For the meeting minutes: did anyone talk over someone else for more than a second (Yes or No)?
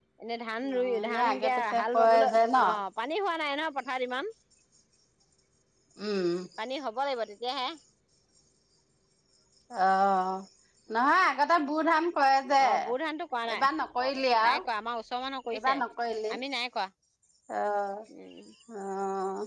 Yes